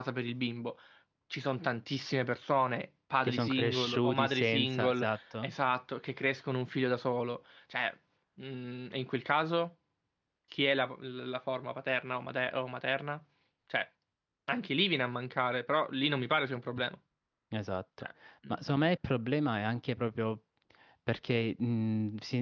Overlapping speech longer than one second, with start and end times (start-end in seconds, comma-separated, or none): 3.2-5.5